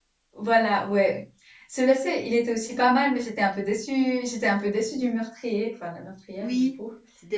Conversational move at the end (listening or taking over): taking over